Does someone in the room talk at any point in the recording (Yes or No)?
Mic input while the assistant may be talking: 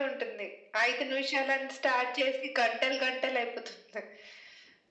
No